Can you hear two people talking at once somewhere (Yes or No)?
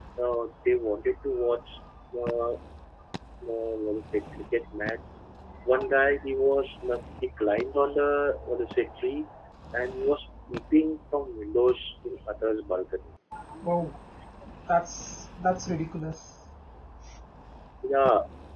No